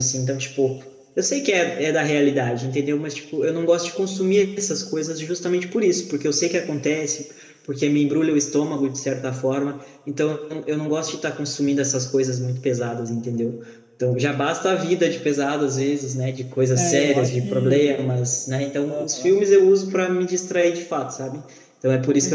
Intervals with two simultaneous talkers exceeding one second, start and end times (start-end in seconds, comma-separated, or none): 16.8-18.2